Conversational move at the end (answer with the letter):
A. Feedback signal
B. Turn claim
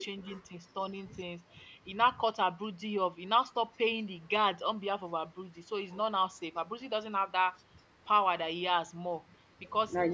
A